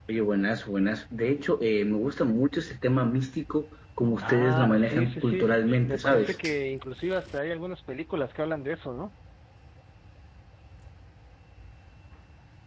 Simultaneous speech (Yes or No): Yes